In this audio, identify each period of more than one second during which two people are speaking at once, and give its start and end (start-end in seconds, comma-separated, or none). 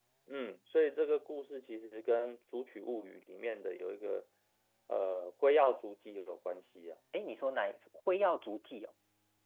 none